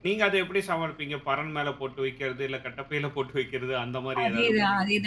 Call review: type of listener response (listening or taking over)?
taking over